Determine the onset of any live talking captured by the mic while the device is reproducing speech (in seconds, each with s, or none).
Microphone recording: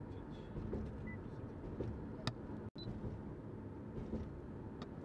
none